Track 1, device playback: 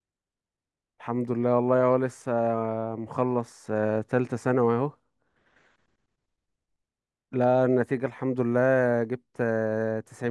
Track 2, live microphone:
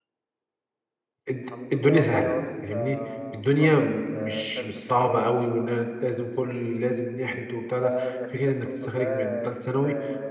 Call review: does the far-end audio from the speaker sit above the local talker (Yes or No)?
No